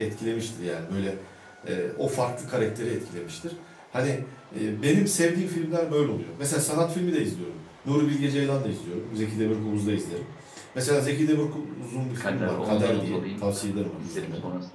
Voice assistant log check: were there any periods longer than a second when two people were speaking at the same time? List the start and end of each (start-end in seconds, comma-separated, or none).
12.2-13.4